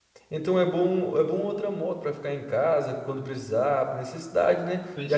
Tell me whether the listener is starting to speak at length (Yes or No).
No